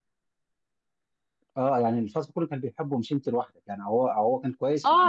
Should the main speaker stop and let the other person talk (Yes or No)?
Yes